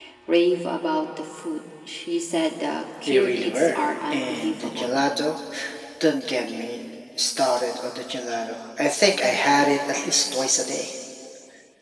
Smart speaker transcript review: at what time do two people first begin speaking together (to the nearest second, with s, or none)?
3 s